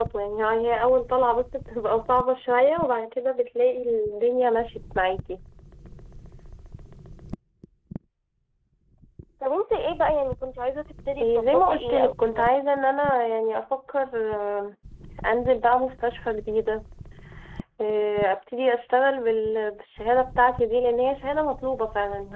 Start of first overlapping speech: 11.2 s

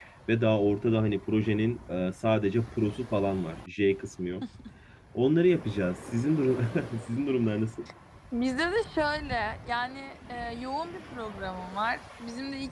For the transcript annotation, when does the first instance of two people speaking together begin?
none

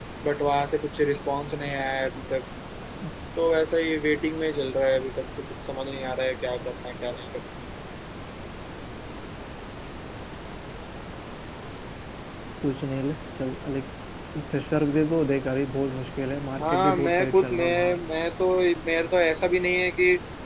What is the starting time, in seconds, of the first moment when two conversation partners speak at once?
16.6 s

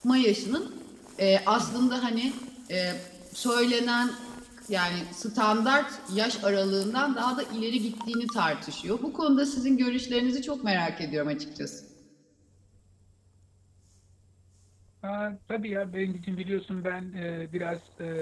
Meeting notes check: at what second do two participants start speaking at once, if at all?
none

